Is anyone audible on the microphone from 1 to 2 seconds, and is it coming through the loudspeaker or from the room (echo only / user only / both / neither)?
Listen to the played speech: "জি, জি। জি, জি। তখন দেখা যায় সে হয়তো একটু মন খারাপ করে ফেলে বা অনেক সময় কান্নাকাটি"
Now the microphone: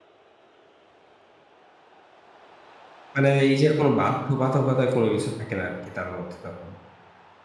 neither